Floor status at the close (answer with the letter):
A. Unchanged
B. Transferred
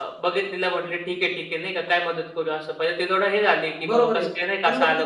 B